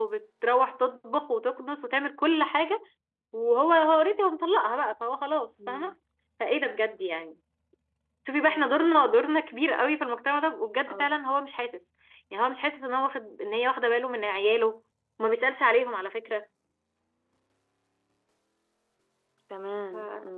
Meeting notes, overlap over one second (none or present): none